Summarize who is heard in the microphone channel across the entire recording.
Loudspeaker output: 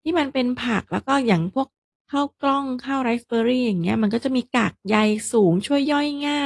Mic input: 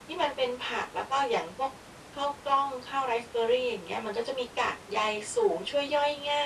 echo only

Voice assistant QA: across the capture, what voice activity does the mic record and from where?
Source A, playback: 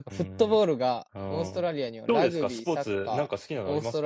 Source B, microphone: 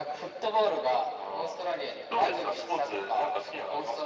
echo only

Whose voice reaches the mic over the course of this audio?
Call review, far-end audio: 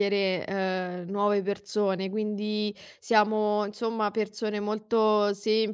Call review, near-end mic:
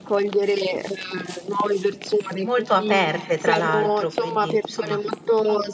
both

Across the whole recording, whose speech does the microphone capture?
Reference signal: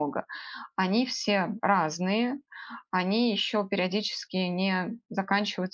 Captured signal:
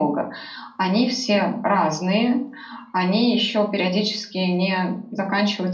echo only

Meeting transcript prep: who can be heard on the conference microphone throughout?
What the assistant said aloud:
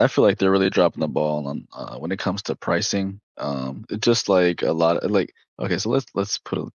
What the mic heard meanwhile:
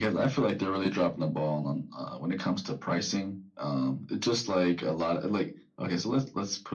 echo only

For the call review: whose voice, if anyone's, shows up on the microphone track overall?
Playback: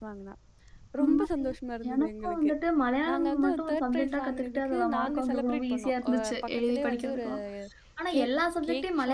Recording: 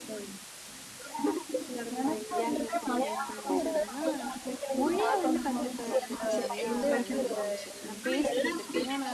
both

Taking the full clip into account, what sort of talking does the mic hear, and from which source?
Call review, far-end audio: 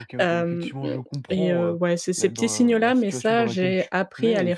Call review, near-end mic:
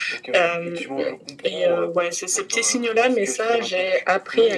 echo only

